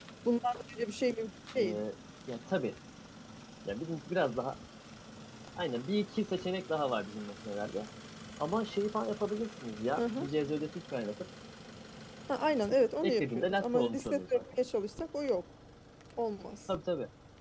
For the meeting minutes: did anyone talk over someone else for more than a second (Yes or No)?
Yes